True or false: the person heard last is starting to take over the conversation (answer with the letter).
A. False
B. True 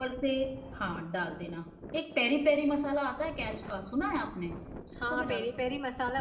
B